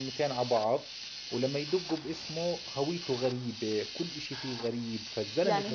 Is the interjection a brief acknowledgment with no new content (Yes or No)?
No